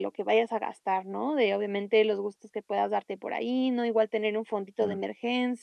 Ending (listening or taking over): listening